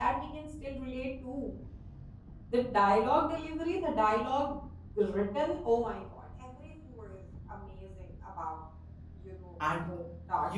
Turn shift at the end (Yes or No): Yes